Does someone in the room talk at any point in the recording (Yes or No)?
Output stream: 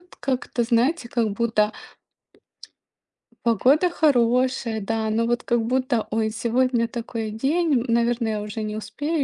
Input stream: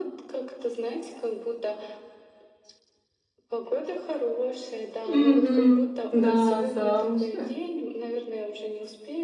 Yes